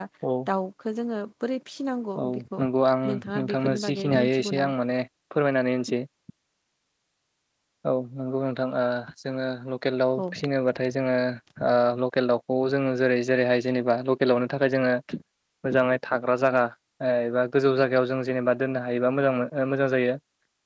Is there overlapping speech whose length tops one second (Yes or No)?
Yes